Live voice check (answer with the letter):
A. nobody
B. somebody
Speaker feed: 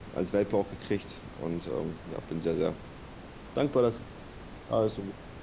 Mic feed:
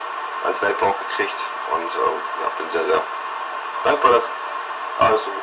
A